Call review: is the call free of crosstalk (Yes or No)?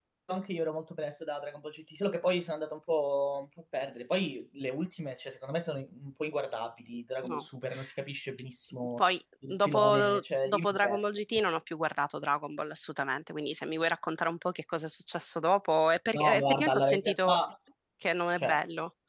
No